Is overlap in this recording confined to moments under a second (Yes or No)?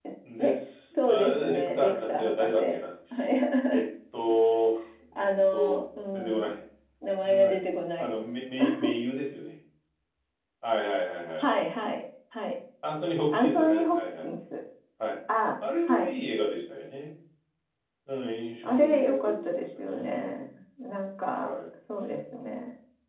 No